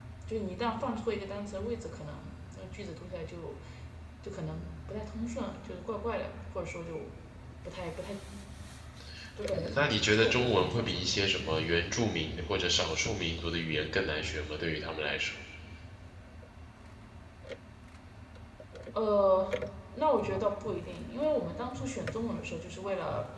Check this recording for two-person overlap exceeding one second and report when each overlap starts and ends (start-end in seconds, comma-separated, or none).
9.5-11.0